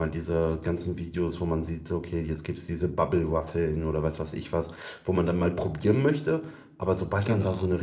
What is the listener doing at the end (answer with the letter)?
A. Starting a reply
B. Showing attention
B